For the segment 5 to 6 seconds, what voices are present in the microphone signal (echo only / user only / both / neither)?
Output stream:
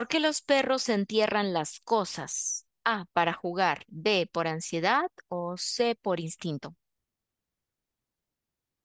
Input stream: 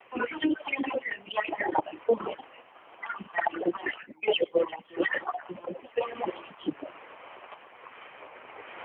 echo only